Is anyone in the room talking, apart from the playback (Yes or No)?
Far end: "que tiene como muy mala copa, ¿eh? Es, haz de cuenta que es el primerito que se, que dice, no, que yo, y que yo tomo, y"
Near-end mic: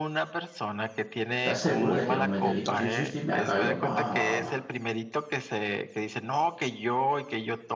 Yes